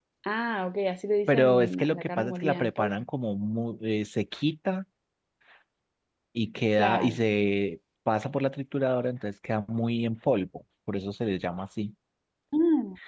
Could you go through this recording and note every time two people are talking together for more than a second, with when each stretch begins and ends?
1.3-2.9

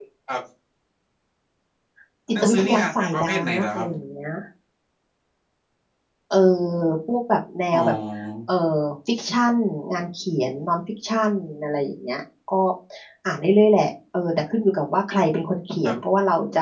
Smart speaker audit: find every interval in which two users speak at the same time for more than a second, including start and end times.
2.4-3.9

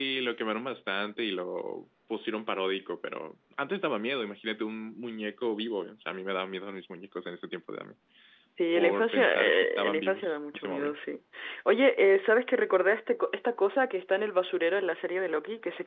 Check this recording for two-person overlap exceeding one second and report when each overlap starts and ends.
8.8-11.0

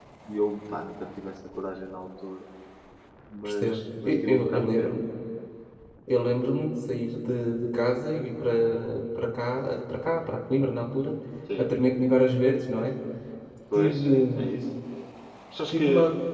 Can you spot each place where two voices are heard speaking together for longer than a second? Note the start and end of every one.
3.4-4.9

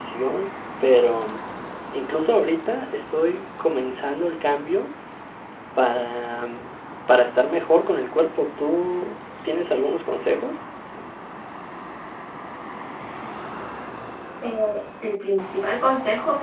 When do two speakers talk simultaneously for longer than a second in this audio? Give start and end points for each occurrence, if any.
none

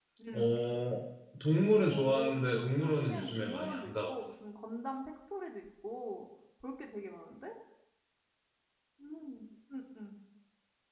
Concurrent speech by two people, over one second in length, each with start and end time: 1.9-4.3

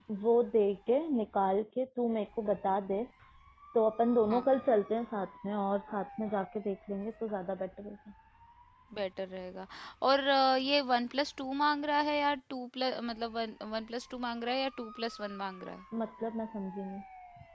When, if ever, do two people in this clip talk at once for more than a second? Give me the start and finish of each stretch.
none

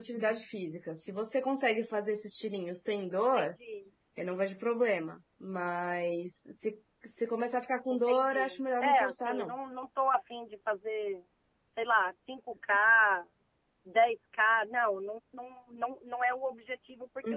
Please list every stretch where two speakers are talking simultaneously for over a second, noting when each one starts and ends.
7.9-9.5

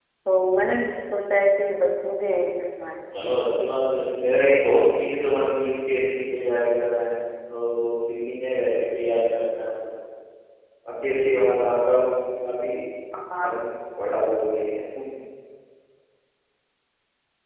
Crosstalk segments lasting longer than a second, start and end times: none

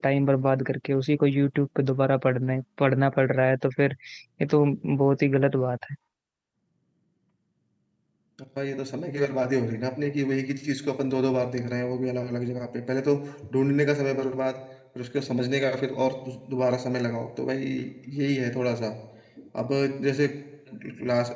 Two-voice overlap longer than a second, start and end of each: none

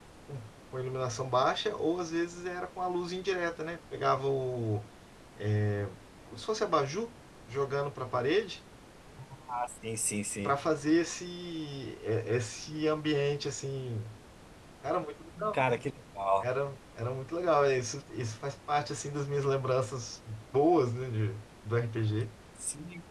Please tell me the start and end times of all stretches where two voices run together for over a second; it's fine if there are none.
none

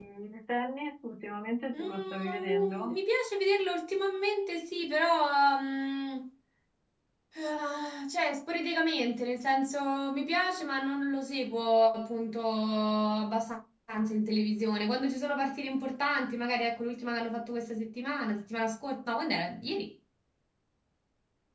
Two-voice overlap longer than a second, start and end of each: 1.7-3.0

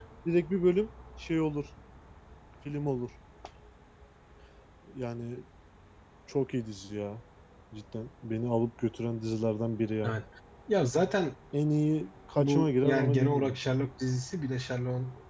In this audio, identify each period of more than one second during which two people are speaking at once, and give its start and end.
12.4-13.6

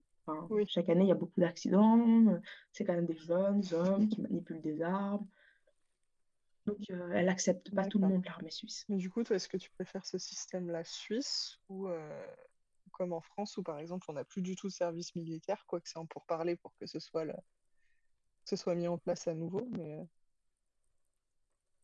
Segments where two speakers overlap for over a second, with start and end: none

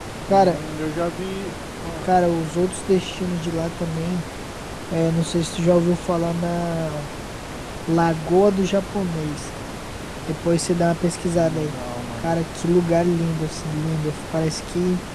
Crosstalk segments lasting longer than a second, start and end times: none

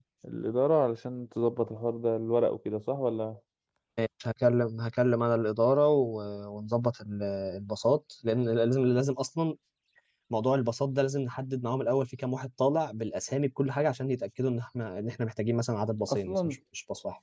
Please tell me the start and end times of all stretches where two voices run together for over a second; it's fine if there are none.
none

